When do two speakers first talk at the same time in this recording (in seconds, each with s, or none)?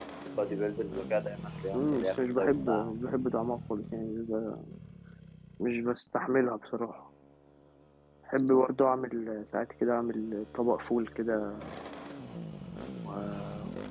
1.7 s